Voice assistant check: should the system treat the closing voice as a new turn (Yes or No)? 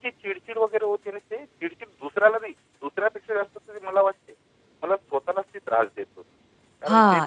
Yes